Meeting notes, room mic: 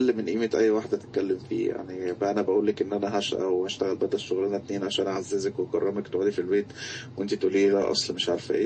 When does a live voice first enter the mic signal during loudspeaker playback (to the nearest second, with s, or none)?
none